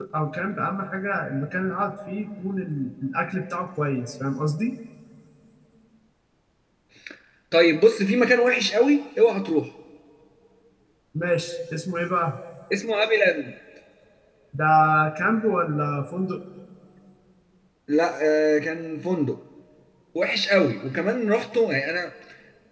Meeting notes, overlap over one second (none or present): none